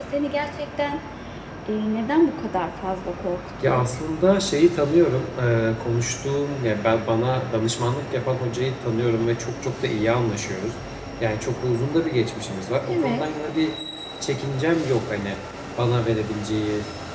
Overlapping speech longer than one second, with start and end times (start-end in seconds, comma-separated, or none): none